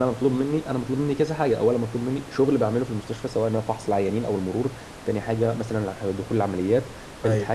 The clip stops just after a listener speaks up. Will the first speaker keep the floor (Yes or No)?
Yes